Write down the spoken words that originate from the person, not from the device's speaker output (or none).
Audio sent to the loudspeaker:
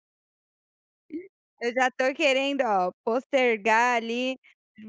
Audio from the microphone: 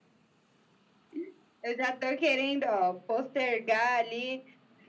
none